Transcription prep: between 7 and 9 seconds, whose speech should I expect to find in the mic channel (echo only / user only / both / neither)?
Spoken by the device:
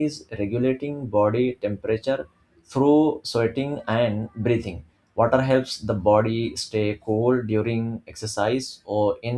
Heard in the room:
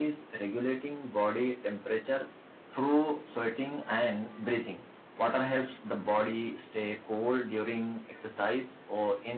echo only